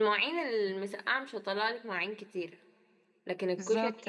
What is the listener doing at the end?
listening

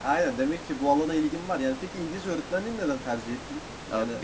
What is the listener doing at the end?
taking over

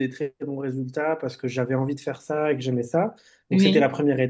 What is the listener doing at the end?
listening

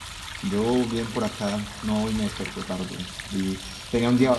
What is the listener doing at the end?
listening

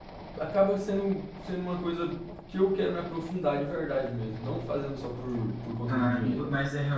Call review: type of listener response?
taking over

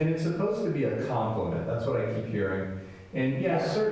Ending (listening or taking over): listening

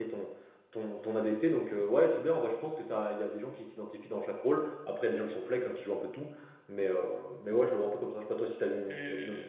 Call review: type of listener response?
taking over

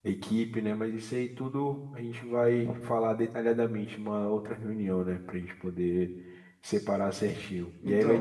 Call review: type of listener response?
listening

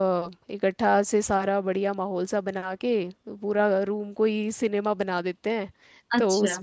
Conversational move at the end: listening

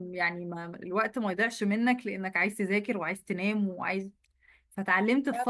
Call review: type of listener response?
listening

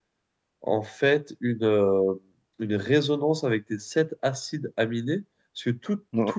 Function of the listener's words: listening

